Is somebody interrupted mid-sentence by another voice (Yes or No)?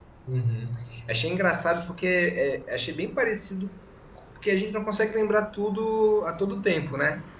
No